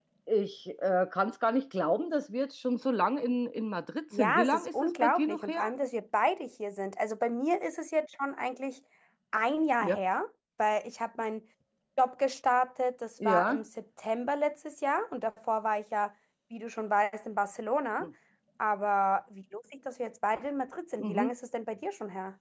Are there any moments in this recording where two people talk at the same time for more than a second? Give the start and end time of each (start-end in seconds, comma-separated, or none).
4.2-5.7